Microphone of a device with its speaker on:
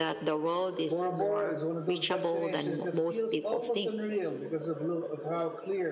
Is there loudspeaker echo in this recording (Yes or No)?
Yes